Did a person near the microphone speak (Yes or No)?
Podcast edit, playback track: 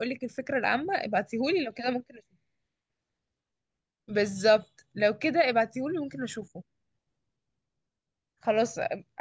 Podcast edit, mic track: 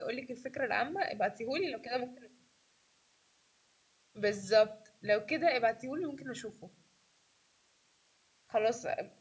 No